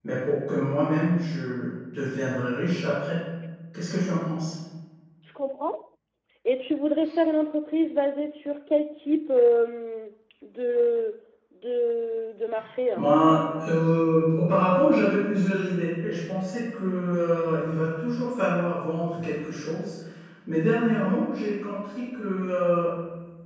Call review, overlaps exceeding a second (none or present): none